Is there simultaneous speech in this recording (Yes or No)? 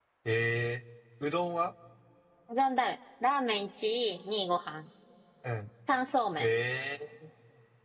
No